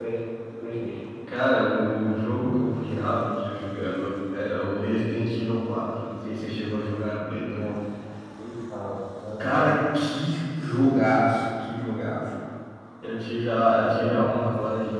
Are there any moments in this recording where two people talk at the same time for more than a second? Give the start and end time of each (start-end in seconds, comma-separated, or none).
none